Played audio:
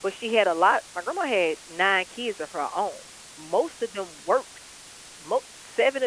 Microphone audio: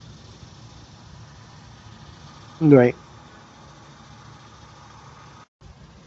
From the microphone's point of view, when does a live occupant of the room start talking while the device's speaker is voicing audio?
3 s

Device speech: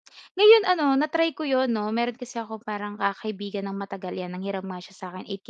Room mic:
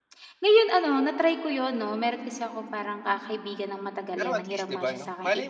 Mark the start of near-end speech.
4 s

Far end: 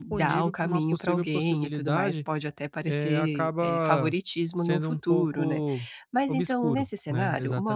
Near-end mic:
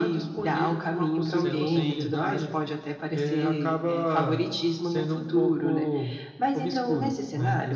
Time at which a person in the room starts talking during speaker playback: 1 s

